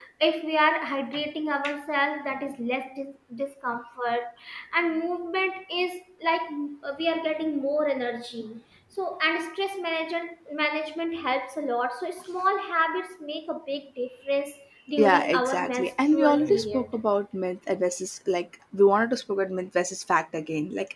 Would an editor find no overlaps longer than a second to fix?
No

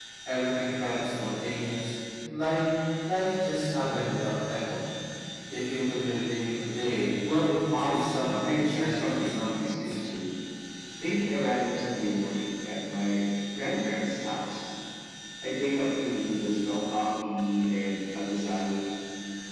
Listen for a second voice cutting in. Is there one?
Yes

